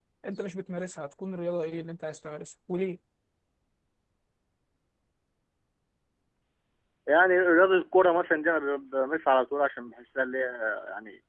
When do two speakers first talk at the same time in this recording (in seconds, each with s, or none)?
none